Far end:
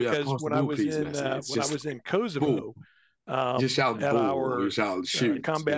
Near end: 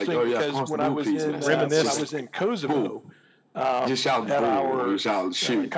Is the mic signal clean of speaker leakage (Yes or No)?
No